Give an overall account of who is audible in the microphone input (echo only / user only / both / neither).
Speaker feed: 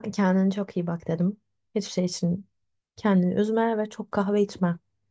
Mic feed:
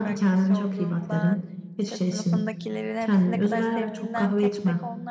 both